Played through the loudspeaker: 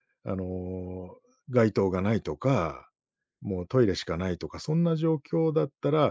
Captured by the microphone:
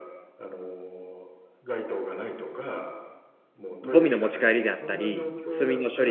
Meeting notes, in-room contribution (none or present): present